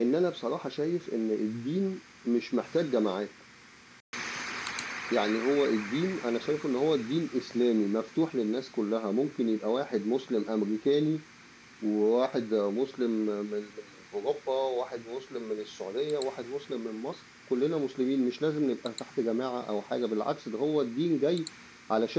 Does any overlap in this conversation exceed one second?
No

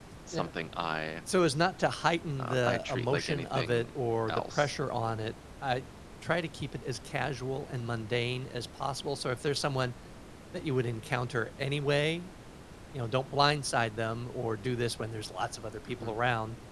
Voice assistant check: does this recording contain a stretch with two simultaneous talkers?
Yes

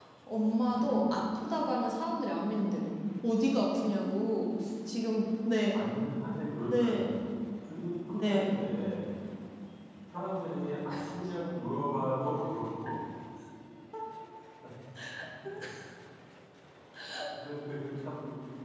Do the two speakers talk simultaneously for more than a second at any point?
No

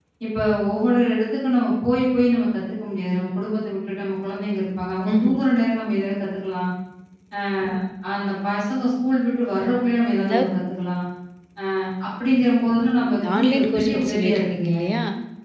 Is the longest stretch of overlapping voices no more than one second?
No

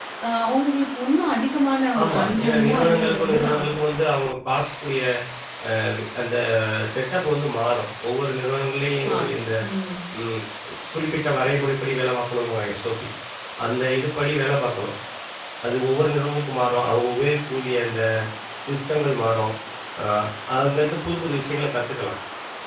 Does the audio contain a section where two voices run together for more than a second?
Yes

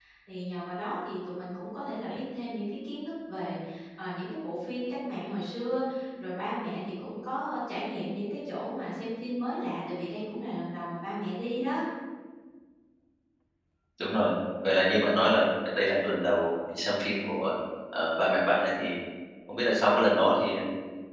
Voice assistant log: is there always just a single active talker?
Yes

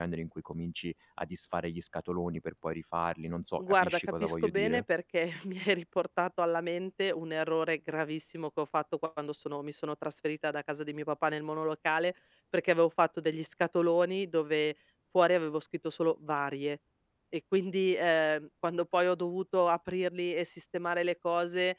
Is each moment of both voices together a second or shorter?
No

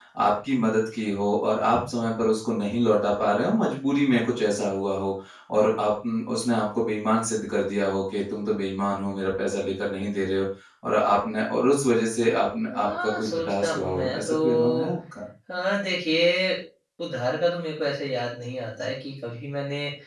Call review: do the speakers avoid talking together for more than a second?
No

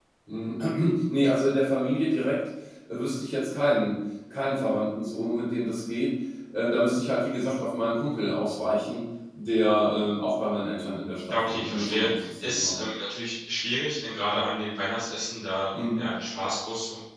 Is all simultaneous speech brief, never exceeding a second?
No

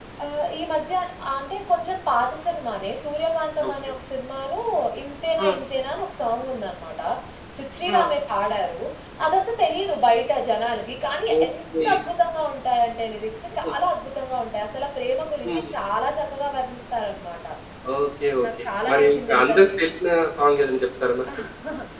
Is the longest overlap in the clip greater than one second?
Yes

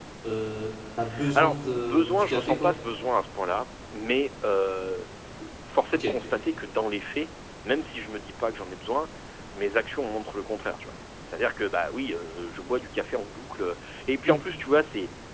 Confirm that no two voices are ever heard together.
No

